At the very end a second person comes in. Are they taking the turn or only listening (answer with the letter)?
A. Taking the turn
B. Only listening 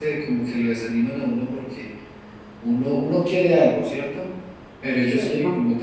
B